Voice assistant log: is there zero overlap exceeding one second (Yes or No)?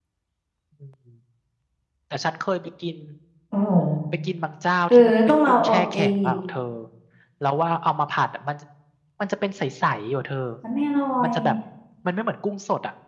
No